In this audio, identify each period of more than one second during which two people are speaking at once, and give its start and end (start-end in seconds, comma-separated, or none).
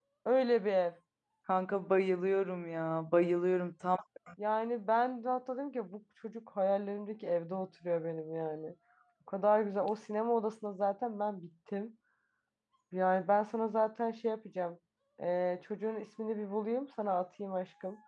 none